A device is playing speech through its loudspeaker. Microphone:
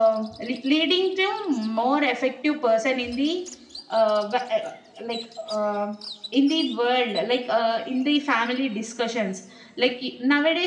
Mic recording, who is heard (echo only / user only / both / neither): echo only